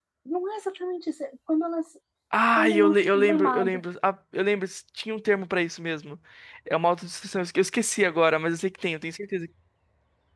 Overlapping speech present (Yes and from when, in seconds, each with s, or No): Yes, from 2.6 s